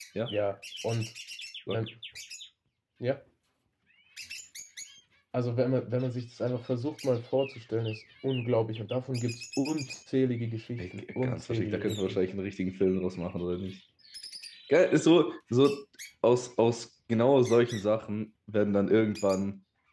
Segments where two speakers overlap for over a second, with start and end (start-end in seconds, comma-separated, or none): 10.8-12.2